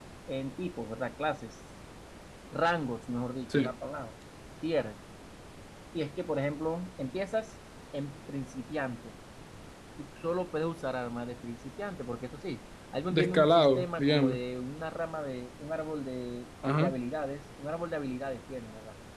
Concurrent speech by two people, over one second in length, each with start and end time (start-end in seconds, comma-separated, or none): 13.1-14.4